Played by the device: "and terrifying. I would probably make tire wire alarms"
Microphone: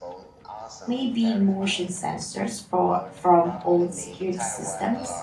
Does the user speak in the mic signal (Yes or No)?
Yes